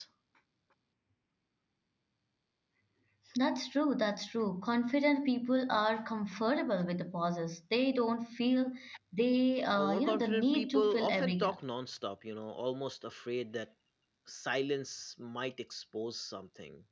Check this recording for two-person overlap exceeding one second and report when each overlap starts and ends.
9.8-11.6

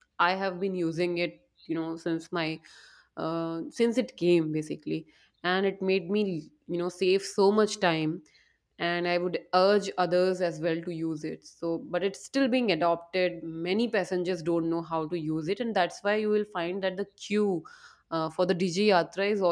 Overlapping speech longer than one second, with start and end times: none

